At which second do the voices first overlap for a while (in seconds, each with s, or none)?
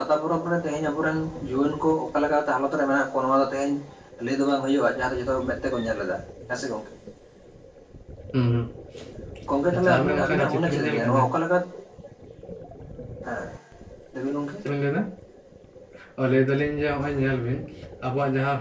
9.7 s